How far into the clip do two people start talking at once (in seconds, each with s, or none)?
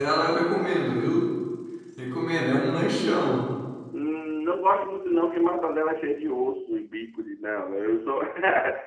none